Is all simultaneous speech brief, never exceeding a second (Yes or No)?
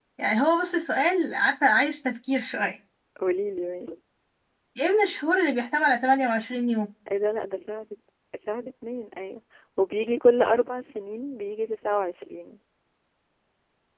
Yes